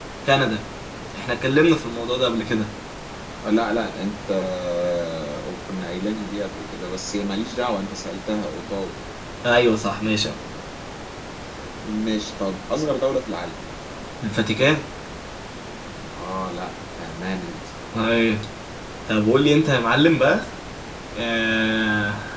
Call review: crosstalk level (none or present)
none